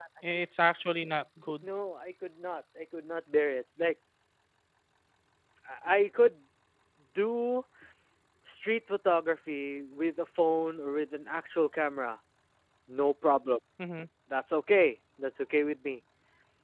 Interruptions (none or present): none